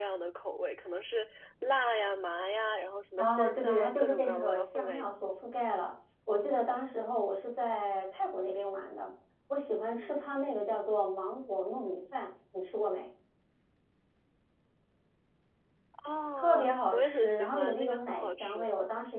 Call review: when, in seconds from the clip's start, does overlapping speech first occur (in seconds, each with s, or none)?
3.2 s